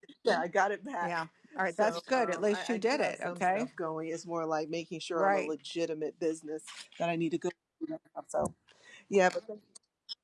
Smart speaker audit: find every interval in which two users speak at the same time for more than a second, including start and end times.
1.7-3.7

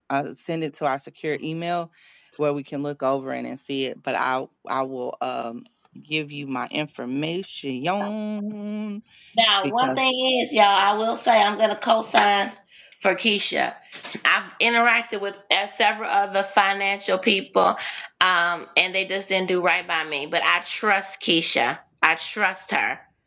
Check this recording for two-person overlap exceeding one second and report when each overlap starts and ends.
none

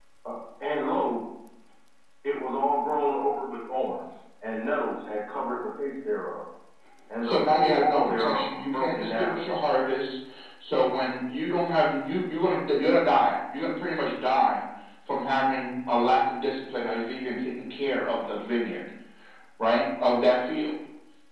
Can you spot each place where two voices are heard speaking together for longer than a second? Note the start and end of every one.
7.2-9.3

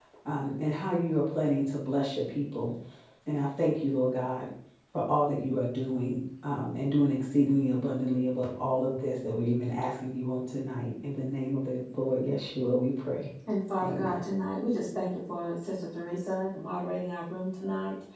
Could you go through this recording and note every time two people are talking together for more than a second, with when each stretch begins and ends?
none

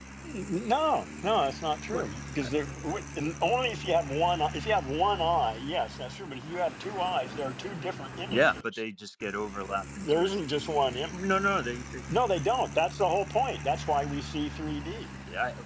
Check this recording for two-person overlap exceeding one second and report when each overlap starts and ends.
none

